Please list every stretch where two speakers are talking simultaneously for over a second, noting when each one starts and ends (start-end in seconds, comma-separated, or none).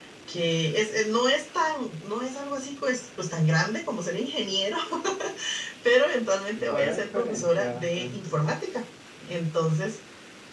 6.7-8.5